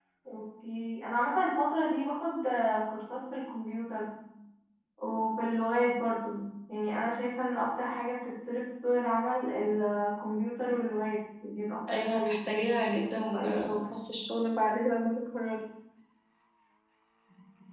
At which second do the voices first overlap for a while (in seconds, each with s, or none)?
11.9 s